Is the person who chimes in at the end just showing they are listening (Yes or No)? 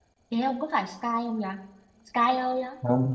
No